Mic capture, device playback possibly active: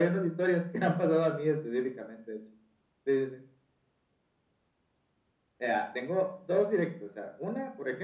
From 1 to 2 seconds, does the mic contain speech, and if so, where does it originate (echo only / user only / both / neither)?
echo only